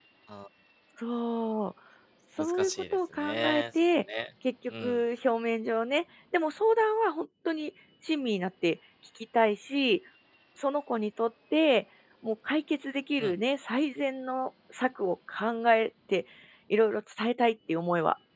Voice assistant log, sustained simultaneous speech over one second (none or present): present